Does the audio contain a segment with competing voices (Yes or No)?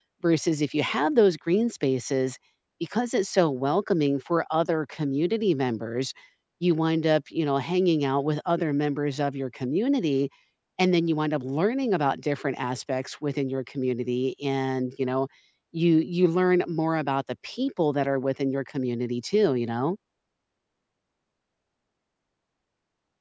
No